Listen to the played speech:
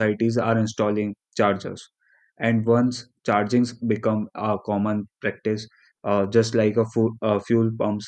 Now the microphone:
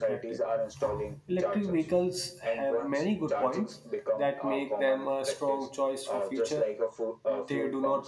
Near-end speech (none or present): present